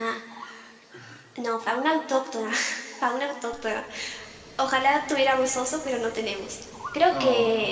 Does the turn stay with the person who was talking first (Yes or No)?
Yes